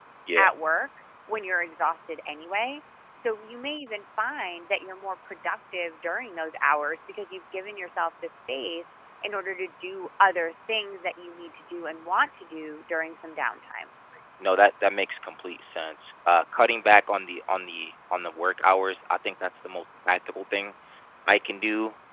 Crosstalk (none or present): none